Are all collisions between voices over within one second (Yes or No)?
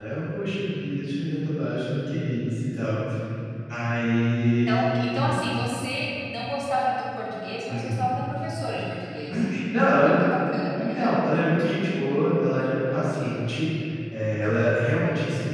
Yes